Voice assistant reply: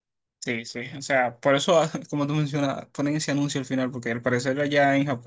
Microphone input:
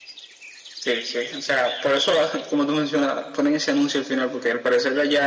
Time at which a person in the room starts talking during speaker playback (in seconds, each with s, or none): none